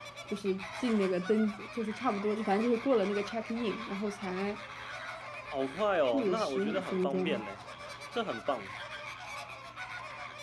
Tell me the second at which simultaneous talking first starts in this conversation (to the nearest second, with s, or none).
6 s